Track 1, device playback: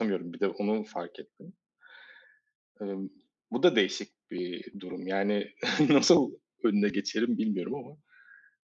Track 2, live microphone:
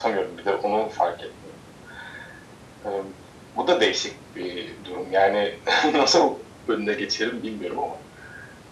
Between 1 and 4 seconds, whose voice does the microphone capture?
echo only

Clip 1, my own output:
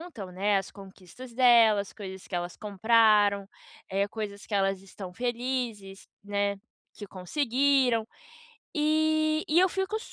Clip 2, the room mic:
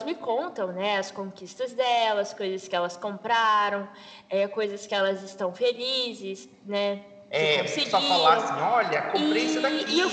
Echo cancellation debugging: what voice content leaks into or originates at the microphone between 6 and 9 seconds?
both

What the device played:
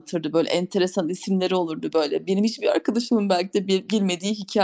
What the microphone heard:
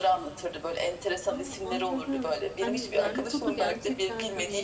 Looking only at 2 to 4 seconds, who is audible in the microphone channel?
both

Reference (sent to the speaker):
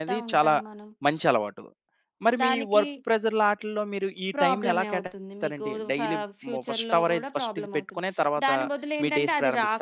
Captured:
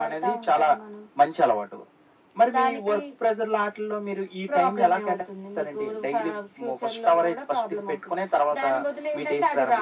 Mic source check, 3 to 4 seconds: echo only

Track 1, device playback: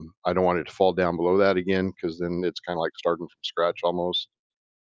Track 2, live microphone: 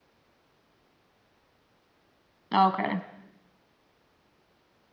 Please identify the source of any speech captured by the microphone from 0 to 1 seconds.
neither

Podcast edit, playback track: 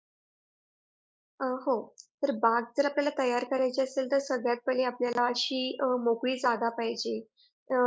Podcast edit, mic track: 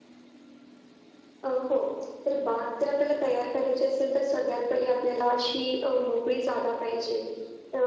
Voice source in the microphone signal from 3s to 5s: echo only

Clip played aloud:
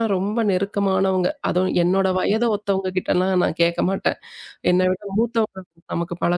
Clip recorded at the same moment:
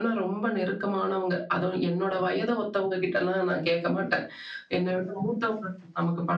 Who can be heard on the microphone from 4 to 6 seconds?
echo only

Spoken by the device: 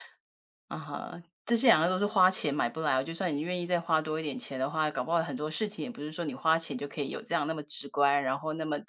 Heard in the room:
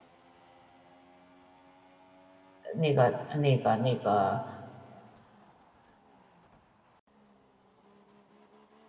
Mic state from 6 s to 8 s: neither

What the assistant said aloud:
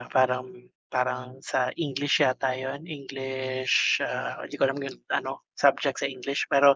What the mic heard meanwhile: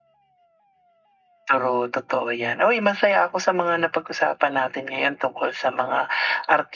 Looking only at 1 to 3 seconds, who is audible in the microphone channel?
user only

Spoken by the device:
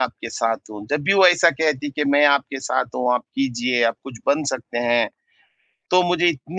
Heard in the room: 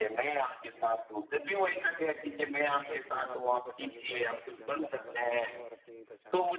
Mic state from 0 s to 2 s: echo only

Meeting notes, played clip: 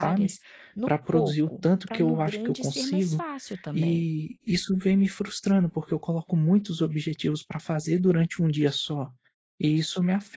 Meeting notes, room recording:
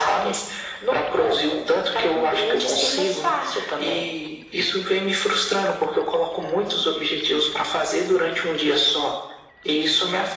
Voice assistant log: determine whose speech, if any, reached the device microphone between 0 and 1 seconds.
echo only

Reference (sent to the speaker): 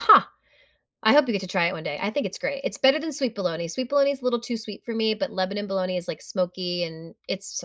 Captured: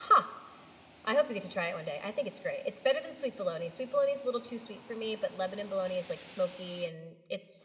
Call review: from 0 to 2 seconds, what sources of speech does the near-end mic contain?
echo only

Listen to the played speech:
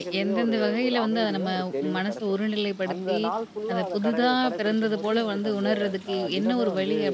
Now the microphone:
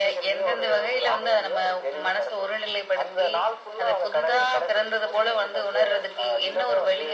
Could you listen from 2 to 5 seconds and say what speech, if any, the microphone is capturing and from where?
echo only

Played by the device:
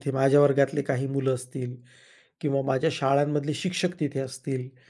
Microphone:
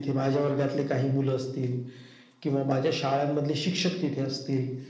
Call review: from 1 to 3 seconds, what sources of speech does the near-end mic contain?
echo only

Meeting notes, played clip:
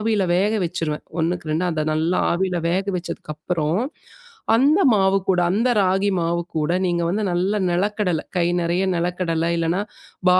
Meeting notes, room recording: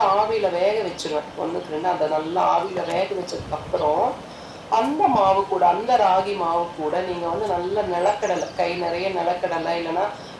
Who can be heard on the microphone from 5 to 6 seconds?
echo only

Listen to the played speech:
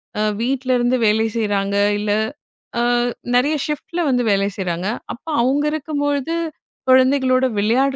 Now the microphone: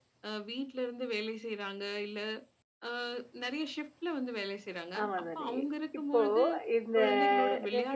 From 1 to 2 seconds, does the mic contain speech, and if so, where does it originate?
echo only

